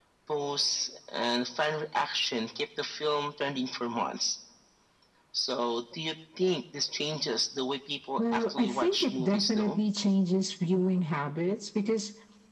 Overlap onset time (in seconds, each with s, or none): 8.2 s